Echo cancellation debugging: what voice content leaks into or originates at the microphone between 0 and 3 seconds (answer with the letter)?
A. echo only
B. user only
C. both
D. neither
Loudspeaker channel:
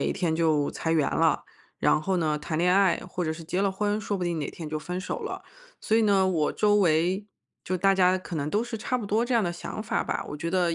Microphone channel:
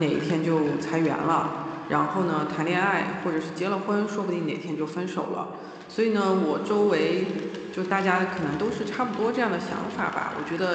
A